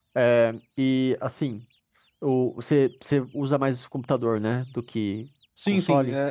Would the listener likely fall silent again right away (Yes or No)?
No